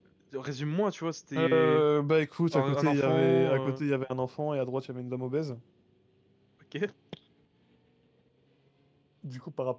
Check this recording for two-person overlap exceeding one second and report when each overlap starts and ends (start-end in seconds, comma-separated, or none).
2.5-3.8